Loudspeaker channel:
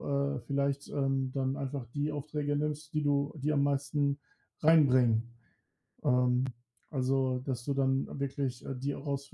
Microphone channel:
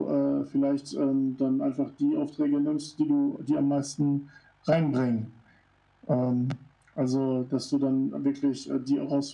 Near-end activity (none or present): none